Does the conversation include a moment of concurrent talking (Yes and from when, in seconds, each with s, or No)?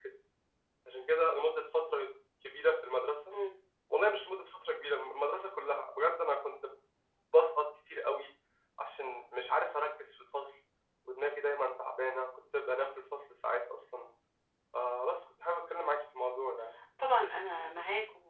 No